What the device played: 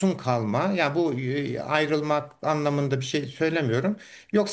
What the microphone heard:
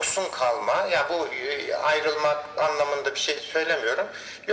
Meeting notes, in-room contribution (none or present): none